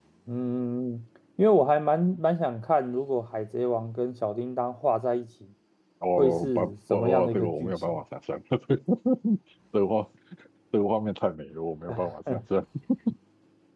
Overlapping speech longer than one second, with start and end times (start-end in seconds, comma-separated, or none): 6.2-8.0